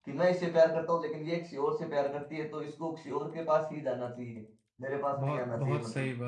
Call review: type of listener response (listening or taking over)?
taking over